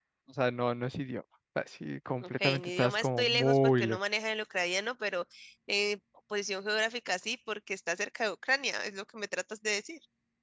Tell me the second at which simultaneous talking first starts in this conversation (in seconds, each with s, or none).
2.2 s